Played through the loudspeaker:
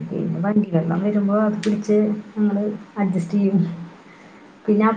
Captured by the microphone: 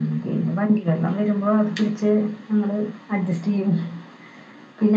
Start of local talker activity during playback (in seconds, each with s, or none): none